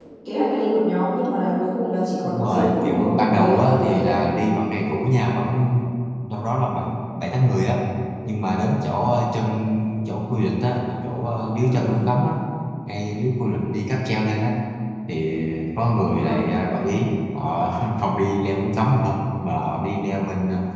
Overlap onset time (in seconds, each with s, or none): 2.2 s